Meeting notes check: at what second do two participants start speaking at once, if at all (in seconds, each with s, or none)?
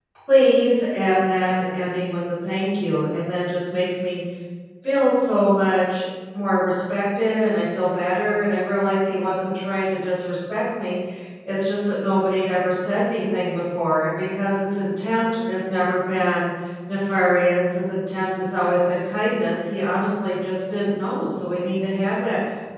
none